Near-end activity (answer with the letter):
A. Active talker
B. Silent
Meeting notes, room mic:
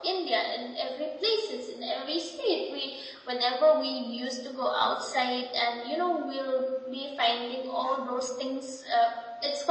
B